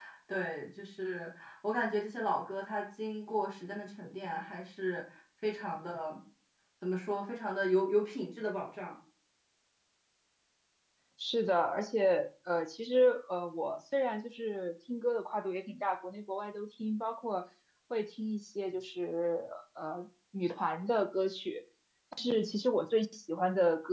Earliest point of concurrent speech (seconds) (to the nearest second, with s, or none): none